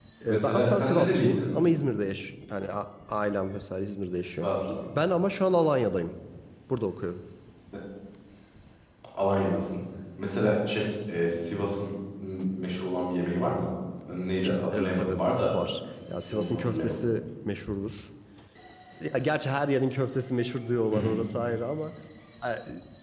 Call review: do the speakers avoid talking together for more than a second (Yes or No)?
No